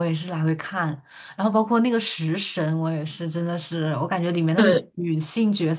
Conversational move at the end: listening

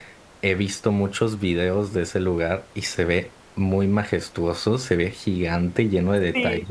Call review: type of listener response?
taking over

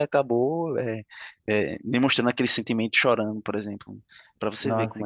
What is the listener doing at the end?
taking over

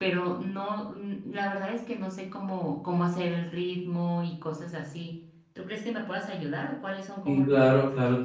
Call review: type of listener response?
taking over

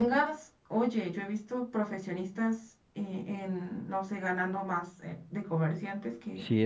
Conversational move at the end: listening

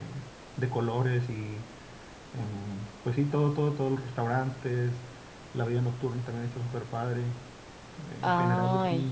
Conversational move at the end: listening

